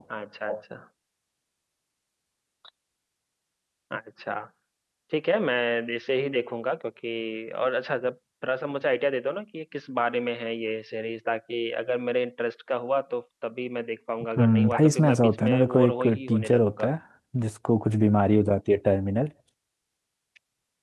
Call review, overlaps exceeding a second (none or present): present